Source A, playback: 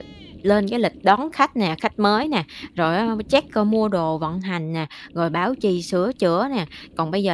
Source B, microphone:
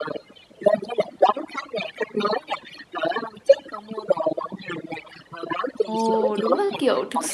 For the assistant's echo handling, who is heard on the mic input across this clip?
both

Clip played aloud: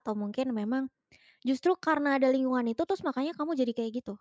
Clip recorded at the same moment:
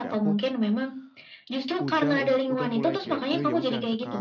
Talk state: both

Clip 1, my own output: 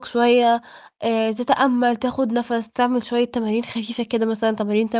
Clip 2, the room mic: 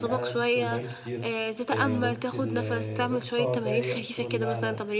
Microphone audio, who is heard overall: both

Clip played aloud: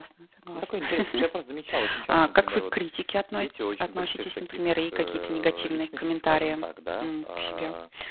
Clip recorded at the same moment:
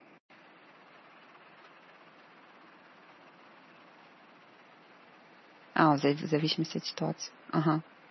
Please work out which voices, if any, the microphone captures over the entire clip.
user only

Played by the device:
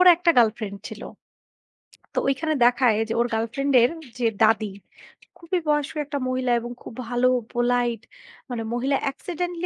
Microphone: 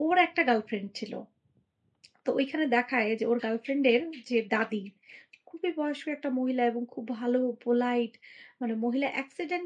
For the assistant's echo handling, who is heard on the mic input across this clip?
echo only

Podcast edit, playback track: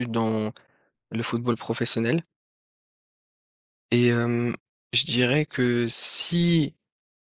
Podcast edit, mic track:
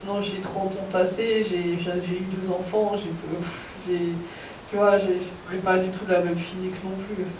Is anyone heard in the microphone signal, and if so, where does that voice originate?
user only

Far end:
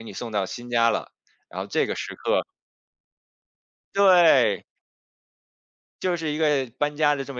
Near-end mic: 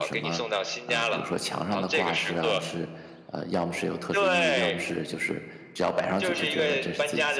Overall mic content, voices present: both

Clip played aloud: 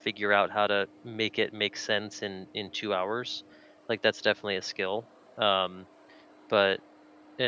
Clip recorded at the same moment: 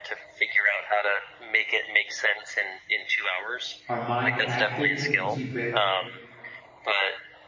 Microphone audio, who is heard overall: both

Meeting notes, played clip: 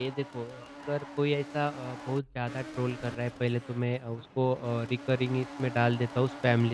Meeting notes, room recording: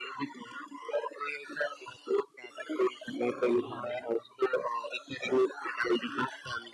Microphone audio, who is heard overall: both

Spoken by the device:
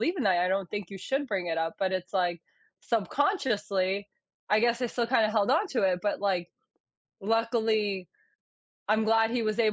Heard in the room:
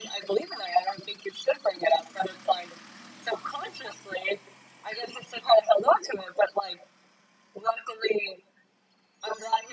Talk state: echo only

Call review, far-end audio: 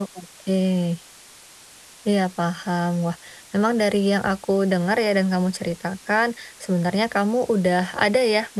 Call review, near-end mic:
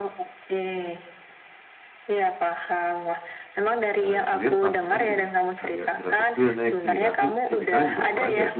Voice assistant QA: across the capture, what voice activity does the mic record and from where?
both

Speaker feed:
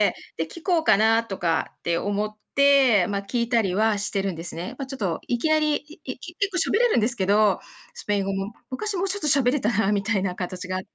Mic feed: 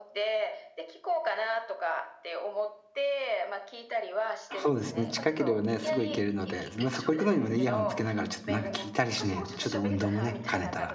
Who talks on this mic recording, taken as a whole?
both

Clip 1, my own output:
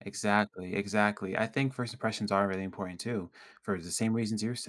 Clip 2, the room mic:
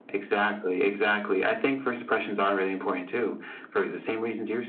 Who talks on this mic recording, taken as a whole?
echo only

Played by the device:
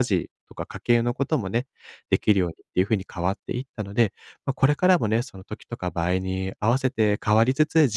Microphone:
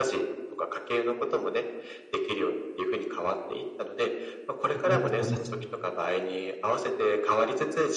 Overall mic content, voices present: both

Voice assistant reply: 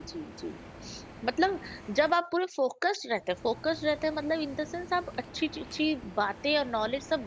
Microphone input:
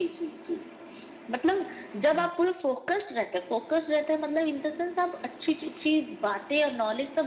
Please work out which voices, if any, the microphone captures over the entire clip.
both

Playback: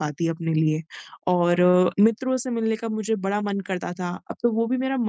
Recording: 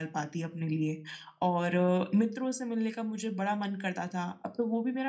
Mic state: echo only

